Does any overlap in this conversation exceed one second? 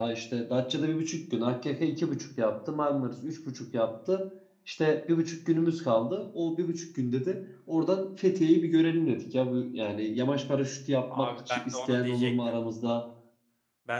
Yes, from 11.1 s

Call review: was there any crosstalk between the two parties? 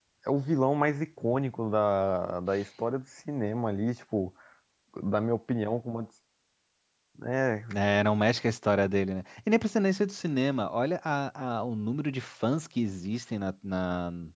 No

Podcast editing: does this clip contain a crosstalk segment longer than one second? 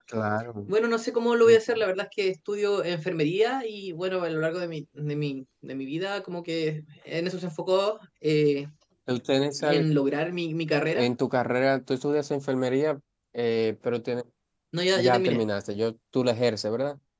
No

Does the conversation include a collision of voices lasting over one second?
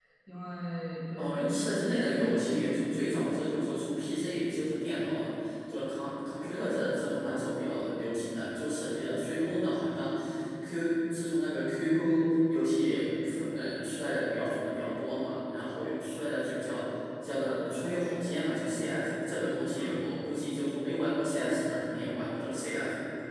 Yes, from 1.2 s

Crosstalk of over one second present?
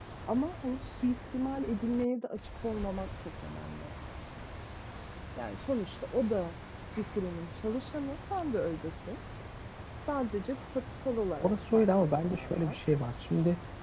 Yes, from 11.4 s

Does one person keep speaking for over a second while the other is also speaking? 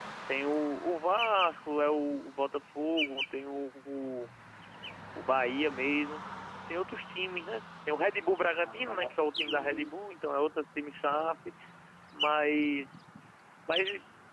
Yes, from 8.6 s

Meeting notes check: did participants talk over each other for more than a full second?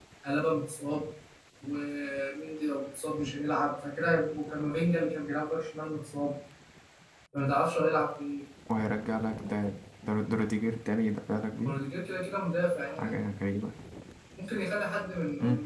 No

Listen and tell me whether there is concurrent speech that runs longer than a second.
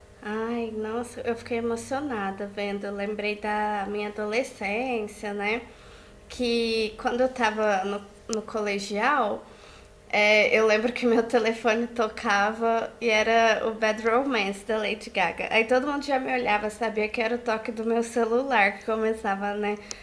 No

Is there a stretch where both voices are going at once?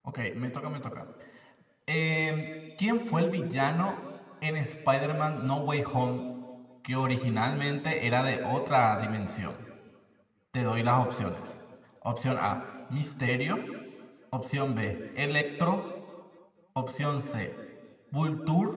No

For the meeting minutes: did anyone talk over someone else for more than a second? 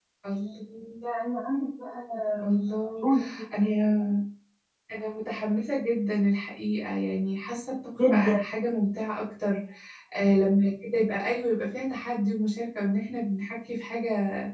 No

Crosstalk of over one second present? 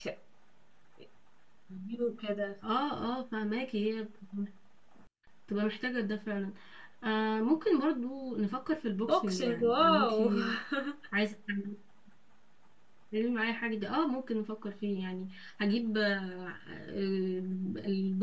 Yes, from 9.1 s

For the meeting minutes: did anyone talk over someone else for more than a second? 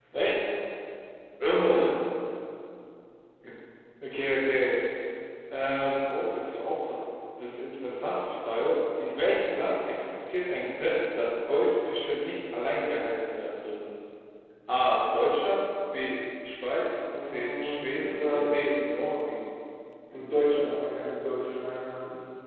Yes, from 17.0 s

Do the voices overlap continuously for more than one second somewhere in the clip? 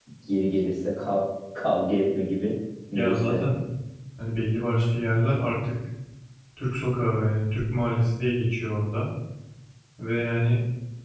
No

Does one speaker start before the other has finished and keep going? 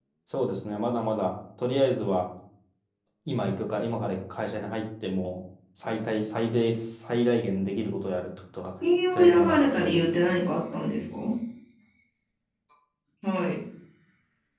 Yes, from 9.1 s

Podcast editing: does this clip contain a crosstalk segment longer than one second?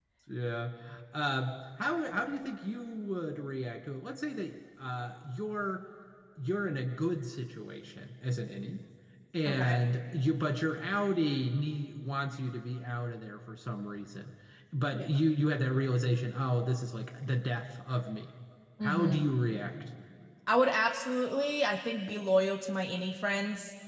No

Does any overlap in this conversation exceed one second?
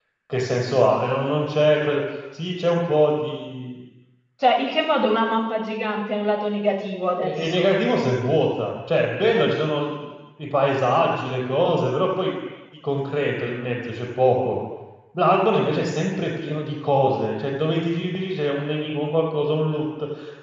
No

